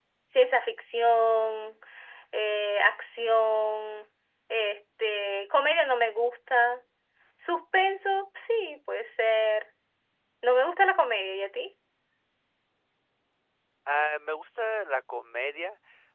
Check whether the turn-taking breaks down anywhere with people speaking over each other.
No

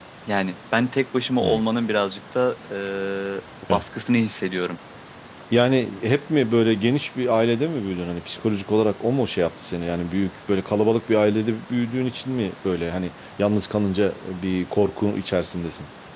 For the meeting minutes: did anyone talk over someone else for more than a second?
No

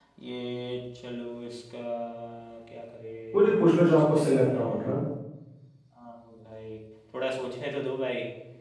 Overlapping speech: Yes, from 3.3 s

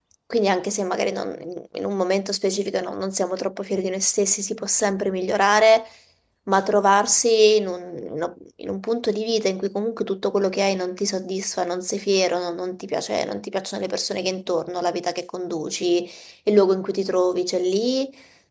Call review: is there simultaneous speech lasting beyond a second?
No

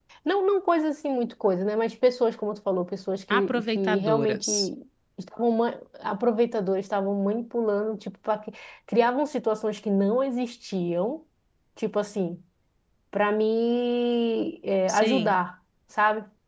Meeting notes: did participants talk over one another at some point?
Yes, from 3.3 s

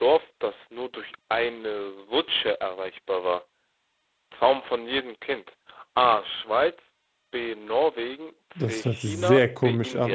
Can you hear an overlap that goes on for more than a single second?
Yes, from 8.6 s

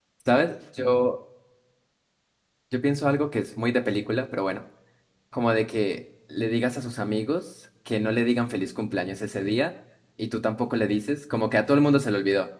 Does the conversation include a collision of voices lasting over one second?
No

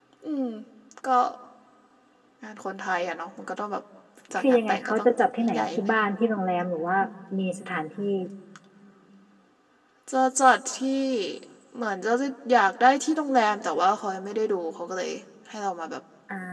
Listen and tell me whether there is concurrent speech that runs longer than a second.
Yes, from 4.4 s

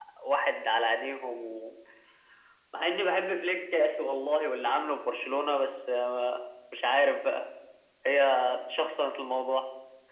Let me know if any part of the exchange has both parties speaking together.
No

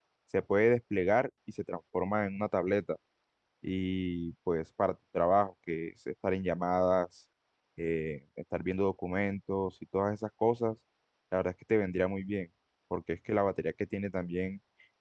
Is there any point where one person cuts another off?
No

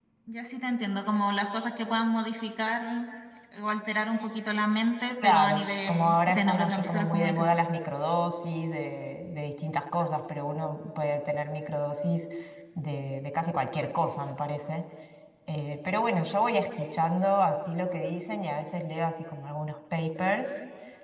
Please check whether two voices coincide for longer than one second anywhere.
Yes, from 5.2 s

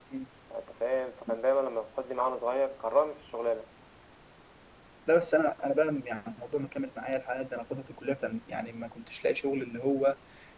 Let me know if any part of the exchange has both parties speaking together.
No

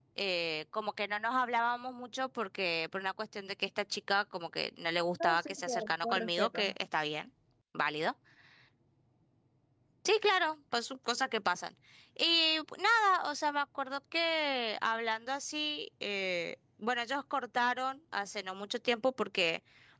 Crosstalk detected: Yes, from 5.1 s

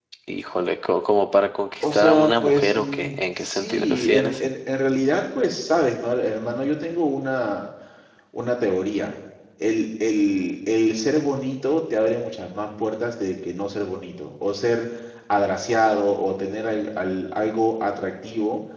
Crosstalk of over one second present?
Yes, from 1.8 s

